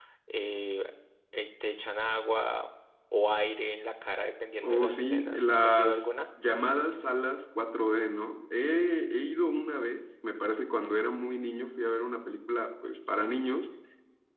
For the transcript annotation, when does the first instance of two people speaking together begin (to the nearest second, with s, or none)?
5 s